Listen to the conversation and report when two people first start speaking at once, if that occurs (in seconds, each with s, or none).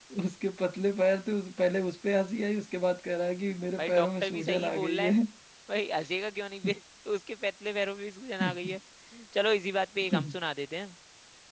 3.8 s